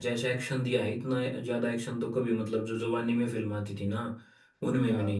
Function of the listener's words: listening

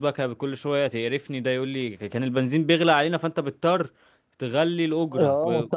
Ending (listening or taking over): taking over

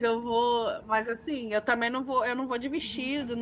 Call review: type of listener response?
listening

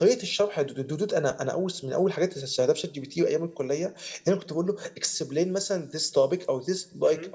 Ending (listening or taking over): listening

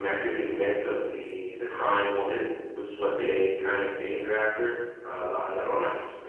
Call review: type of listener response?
taking over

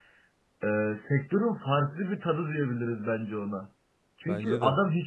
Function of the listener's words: listening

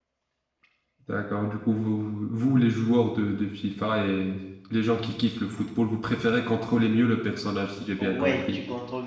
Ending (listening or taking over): taking over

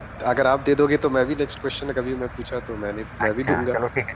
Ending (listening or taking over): taking over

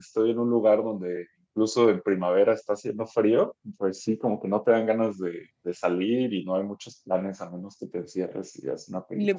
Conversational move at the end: taking over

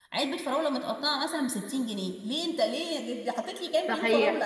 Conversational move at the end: taking over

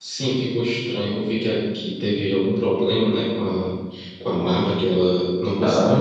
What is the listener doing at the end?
taking over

